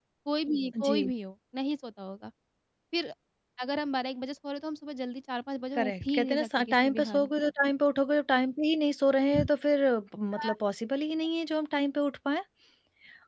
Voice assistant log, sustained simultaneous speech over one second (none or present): present